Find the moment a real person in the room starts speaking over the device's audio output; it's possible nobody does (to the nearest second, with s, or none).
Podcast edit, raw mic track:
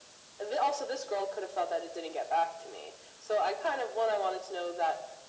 none